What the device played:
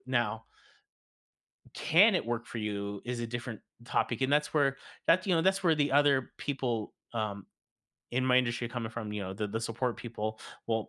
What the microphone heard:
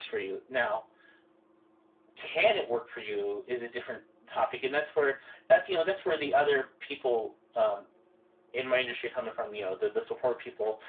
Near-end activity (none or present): none